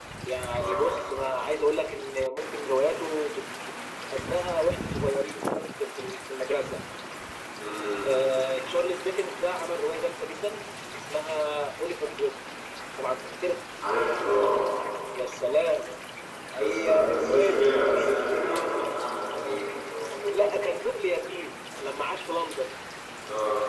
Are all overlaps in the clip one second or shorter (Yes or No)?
No